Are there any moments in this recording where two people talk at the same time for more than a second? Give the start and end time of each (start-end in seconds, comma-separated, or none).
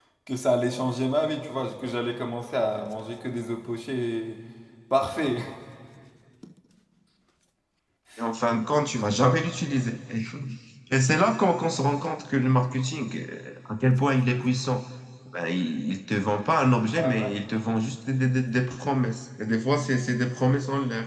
none